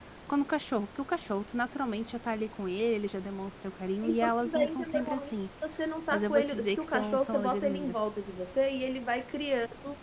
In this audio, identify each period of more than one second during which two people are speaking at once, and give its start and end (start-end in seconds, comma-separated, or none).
4.0-5.3, 6.1-7.9